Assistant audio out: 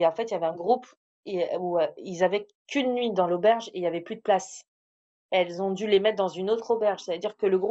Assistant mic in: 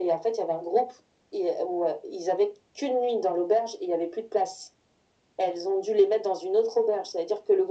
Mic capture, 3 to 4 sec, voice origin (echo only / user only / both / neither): echo only